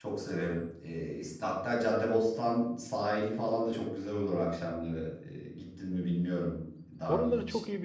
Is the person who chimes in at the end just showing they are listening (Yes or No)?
No